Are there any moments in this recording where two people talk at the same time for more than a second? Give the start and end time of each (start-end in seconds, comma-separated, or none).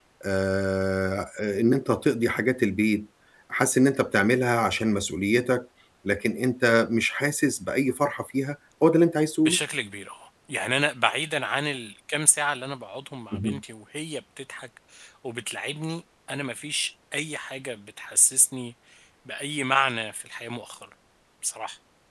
none